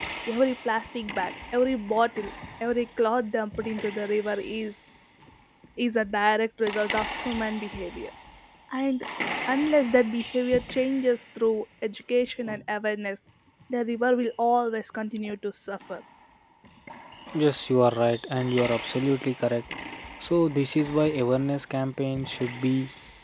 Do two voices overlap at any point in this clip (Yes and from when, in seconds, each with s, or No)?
No